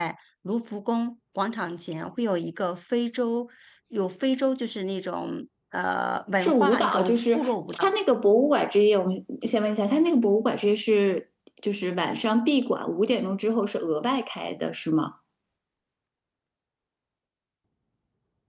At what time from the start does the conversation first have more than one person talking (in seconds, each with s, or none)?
6.4 s